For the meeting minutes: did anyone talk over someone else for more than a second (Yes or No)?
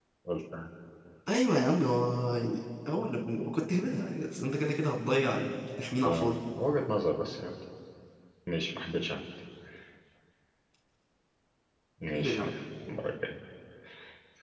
No